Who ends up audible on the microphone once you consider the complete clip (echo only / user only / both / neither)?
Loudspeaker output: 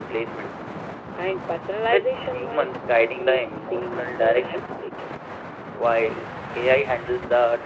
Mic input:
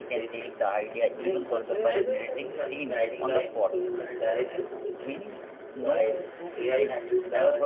both